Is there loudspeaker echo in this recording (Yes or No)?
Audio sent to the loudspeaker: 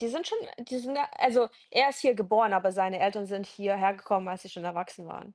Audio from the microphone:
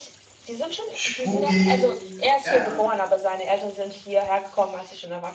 Yes